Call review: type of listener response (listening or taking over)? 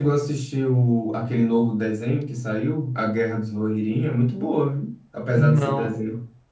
taking over